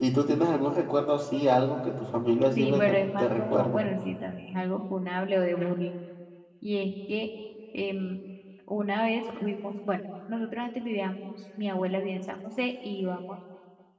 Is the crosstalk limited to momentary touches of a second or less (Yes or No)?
No